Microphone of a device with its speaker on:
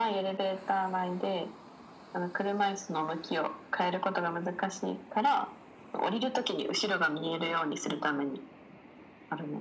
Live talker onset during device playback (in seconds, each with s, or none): none